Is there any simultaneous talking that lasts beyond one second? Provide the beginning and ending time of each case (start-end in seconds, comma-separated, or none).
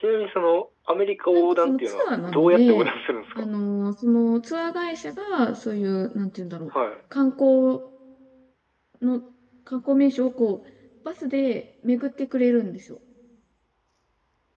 1.3-2.9